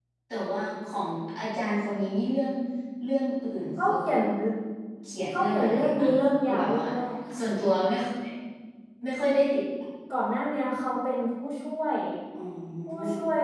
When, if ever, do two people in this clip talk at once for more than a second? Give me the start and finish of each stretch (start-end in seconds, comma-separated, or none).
5.3-6.9